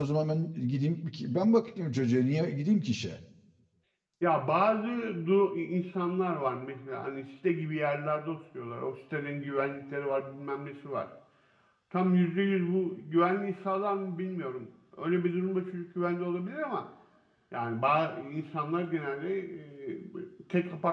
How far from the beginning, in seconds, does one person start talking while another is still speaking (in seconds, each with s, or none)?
none